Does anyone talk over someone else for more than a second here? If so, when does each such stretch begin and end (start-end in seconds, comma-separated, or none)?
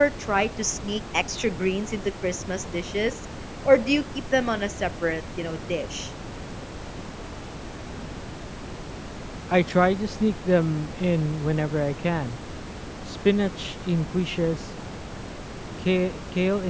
none